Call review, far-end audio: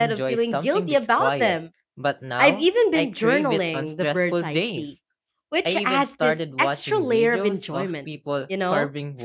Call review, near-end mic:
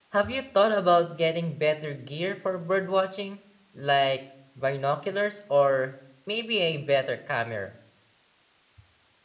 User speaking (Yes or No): Yes